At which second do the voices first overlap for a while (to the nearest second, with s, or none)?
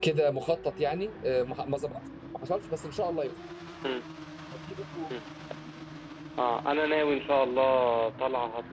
none